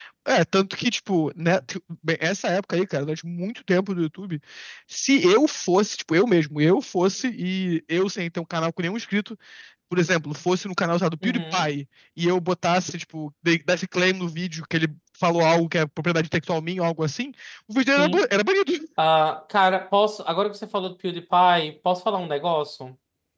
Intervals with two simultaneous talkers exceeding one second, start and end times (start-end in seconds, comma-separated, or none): none